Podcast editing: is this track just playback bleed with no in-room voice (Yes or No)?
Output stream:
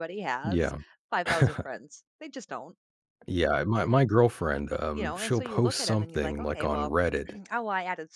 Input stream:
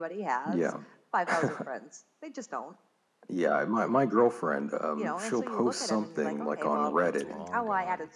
No